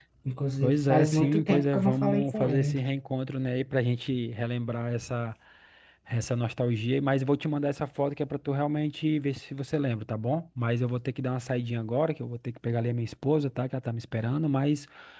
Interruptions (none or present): present